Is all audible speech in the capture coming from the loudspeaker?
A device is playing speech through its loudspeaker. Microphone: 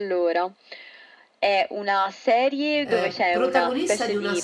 No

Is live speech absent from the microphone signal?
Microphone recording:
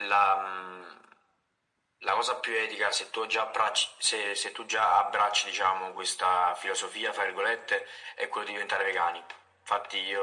Yes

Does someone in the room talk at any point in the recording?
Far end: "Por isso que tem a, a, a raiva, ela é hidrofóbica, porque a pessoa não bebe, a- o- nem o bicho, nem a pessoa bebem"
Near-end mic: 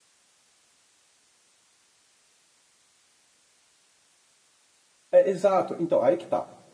Yes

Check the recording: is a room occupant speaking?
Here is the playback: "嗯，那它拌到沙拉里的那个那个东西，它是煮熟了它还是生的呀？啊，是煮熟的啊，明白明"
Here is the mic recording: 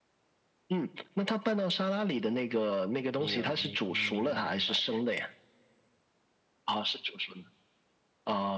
Yes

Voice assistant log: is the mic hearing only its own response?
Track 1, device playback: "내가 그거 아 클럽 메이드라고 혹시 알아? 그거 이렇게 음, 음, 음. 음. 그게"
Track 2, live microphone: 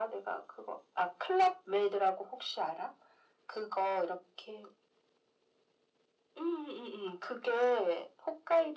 Yes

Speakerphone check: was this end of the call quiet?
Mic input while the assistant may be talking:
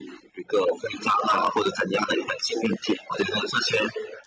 Yes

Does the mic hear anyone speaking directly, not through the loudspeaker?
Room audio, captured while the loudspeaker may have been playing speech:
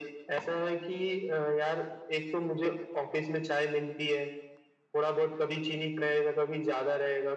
No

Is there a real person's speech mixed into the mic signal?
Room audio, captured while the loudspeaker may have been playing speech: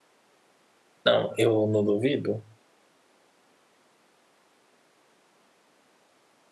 Yes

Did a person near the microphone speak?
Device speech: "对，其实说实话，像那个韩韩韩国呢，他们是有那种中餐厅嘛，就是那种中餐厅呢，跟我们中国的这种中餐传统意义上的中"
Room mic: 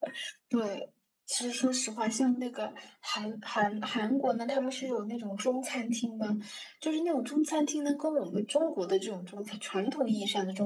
No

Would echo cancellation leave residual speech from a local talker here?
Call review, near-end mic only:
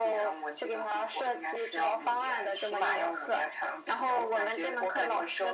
No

